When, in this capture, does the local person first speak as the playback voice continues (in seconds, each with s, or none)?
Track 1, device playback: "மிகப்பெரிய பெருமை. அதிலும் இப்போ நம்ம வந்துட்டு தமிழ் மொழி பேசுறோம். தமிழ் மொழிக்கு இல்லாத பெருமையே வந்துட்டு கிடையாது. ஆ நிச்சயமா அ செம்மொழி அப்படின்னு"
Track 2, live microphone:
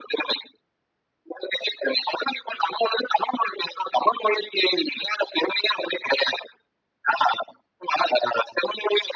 none